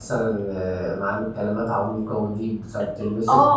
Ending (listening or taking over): taking over